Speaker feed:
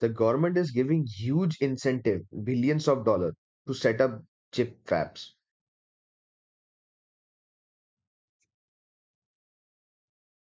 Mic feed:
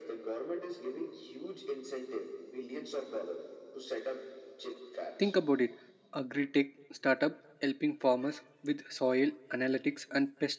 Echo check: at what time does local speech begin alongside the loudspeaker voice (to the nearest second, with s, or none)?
5 s